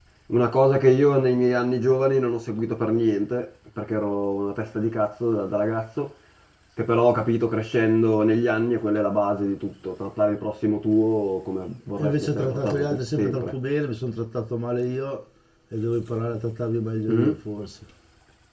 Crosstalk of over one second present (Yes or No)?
Yes